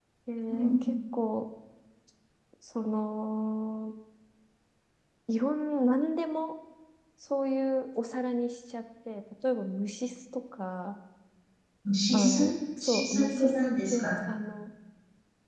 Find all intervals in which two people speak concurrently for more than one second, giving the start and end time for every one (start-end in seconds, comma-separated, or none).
12.8-14.1